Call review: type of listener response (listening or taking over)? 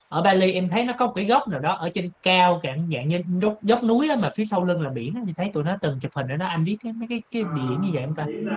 taking over